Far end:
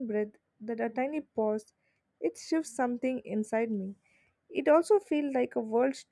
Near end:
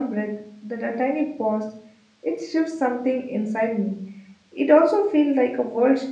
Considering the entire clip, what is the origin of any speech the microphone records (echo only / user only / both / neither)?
echo only